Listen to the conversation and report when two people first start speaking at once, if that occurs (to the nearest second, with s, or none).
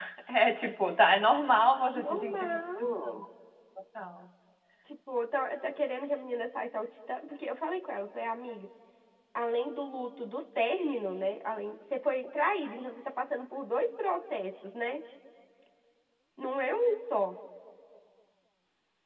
2 s